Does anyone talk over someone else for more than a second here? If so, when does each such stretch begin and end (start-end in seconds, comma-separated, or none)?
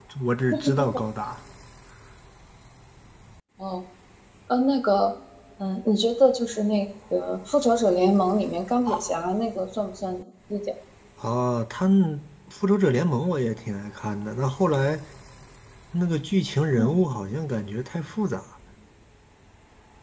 none